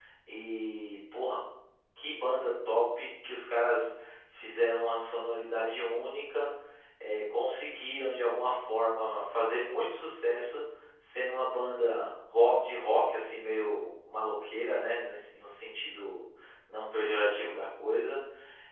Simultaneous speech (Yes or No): No